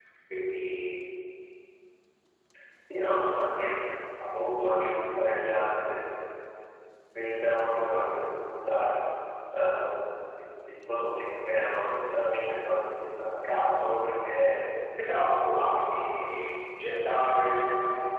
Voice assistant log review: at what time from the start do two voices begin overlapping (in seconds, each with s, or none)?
15.0 s